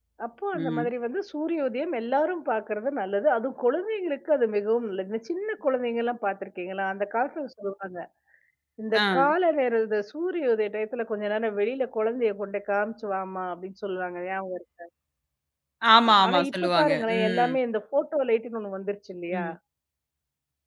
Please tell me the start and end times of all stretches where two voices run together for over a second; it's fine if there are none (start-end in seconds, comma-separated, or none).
16.2-17.5